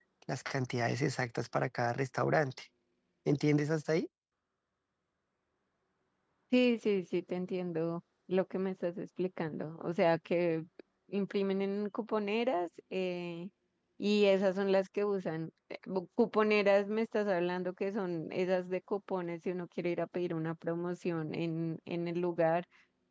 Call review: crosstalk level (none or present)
none